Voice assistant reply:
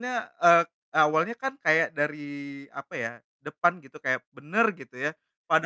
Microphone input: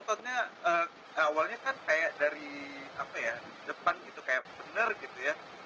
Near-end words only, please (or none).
none